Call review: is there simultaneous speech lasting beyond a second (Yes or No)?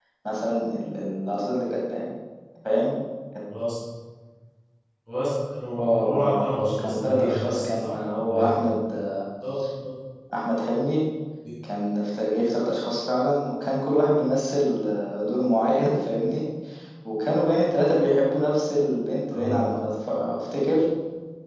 Yes